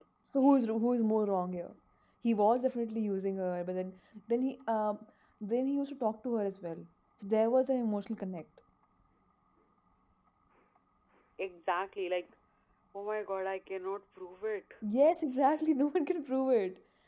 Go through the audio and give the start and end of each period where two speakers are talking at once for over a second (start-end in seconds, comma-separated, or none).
none